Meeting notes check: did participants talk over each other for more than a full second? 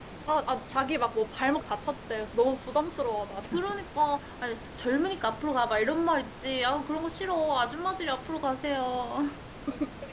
No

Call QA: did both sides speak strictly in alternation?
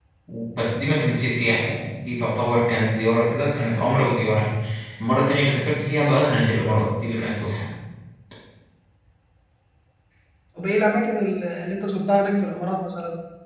Yes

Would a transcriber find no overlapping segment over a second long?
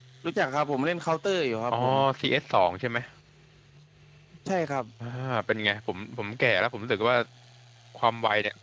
Yes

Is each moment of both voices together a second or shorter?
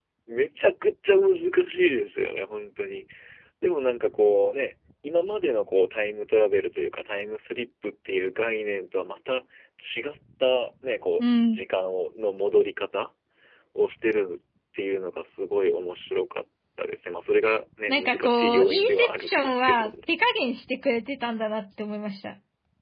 No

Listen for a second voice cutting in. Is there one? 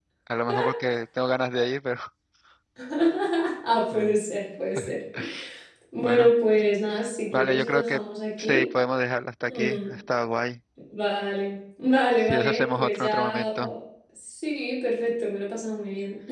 Yes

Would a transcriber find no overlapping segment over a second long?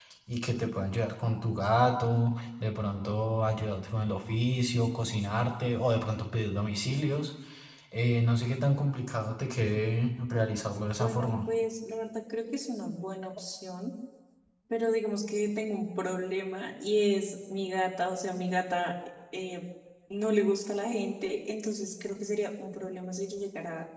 Yes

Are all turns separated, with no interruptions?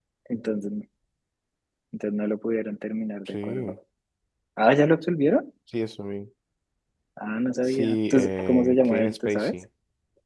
No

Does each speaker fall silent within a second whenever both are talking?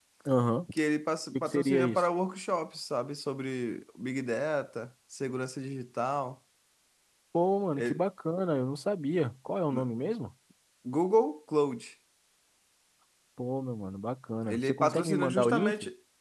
No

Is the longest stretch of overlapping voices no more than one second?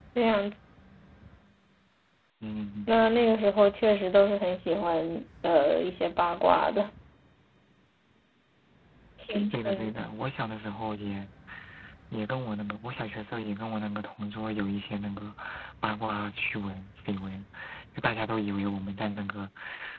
Yes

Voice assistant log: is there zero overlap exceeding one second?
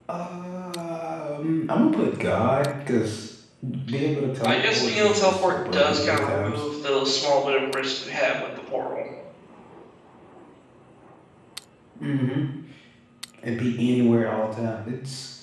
No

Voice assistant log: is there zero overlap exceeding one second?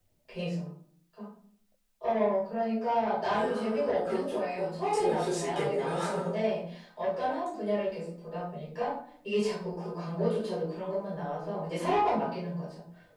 No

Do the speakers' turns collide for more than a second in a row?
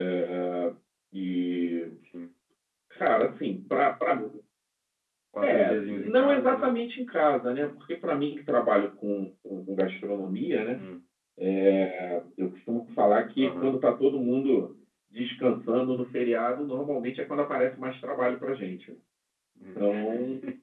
Yes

